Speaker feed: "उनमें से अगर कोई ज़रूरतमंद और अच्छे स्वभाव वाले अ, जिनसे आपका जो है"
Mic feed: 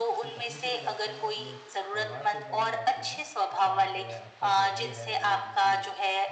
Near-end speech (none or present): present